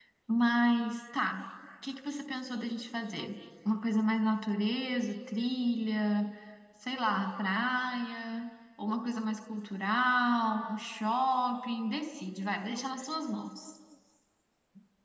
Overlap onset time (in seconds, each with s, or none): none